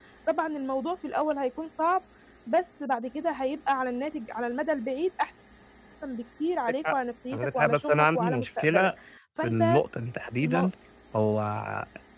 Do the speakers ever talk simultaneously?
Yes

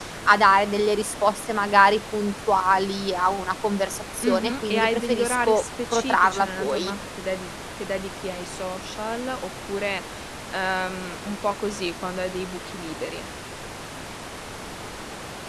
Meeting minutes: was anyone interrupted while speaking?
Yes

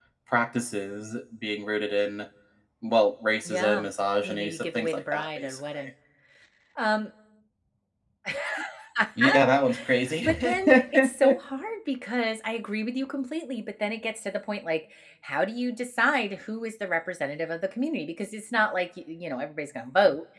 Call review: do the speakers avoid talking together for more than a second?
No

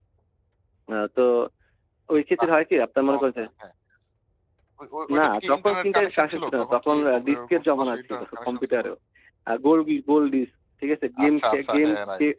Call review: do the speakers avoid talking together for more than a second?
No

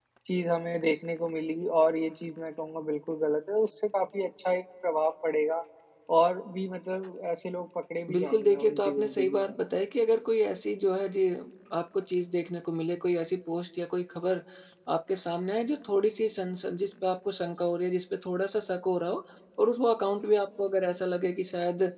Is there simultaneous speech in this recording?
Yes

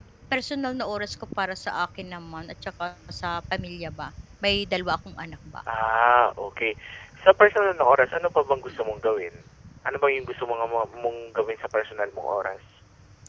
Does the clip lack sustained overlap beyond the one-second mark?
Yes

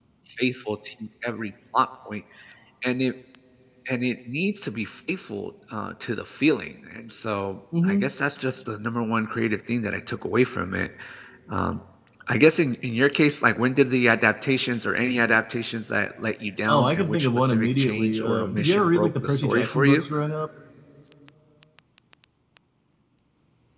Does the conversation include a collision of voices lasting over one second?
Yes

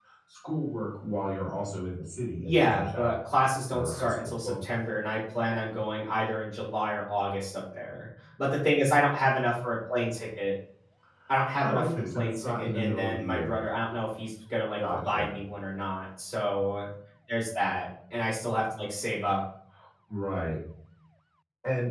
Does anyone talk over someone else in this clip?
Yes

